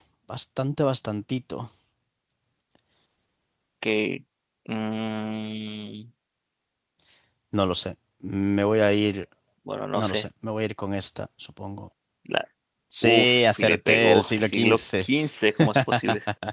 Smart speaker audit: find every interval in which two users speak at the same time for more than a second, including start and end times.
13.0-15.1

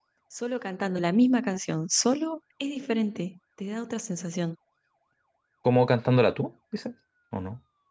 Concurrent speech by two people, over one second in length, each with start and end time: none

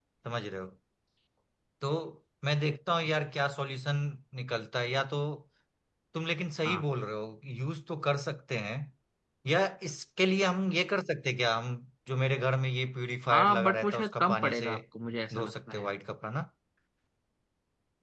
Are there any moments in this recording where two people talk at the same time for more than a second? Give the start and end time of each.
13.3-14.7

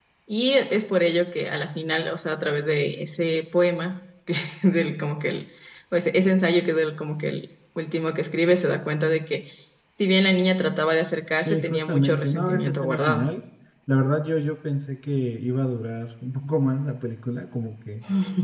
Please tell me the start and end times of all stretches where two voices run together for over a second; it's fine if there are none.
11.4-13.3

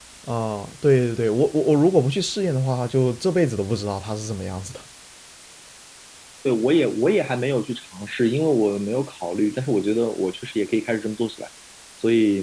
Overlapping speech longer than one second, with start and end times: none

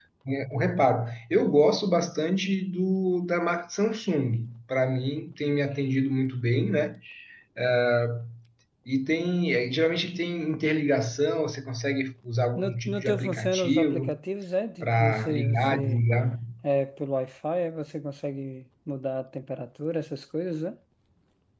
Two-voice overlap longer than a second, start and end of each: 12.6-14.2, 14.8-16.0

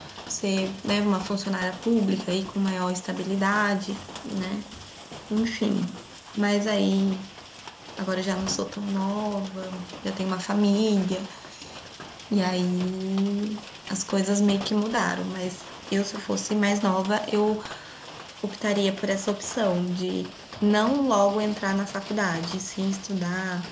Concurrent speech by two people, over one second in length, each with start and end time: none

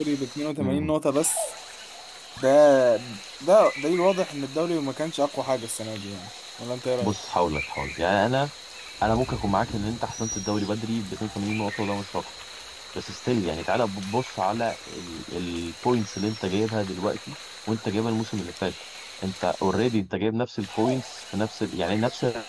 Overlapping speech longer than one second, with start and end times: none

